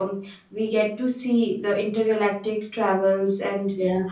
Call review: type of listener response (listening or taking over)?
listening